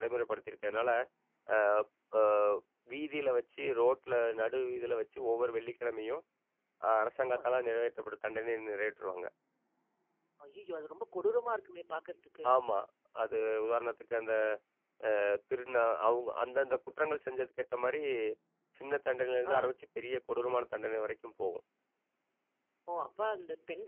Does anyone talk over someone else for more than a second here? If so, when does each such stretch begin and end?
none

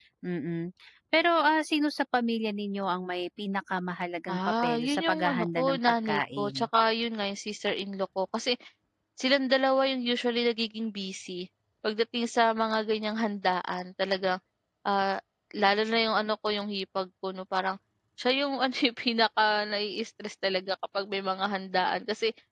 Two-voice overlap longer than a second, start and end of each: 4.3-6.6

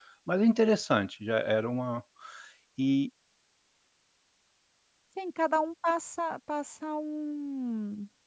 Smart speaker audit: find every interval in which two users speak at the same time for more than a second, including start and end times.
none

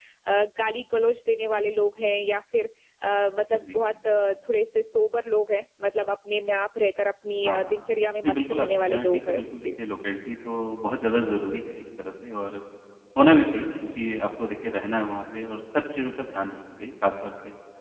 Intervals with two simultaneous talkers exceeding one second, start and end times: 8.2-9.7

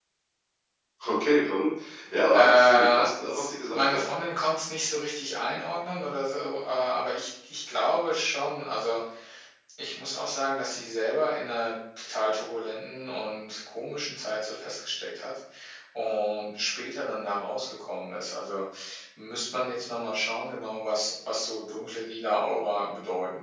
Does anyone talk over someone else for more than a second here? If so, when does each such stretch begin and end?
2.3-4.1

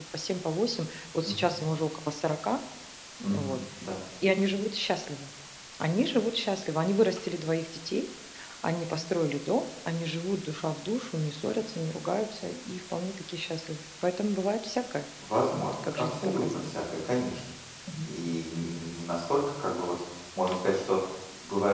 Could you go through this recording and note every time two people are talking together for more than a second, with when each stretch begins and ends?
15.5-16.7

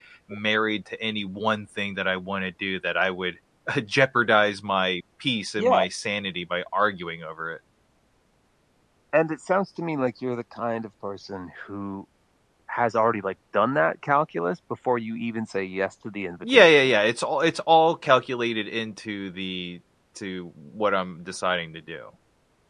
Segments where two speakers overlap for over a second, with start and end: none

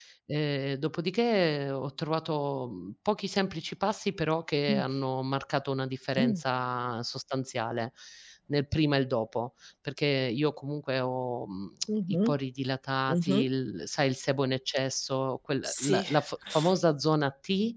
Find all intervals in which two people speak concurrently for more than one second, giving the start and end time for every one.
none

